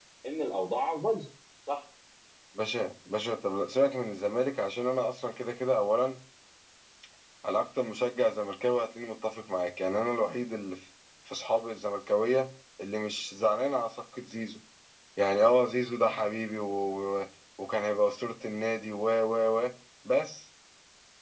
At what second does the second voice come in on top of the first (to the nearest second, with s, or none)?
none